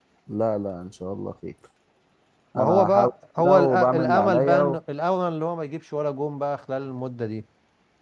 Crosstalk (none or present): present